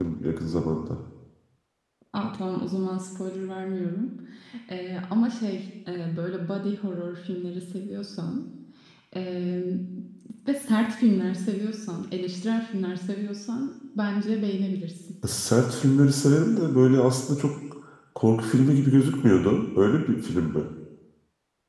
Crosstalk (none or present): none